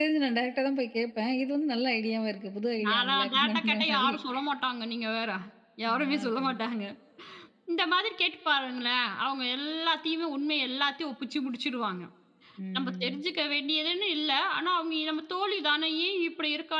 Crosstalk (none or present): present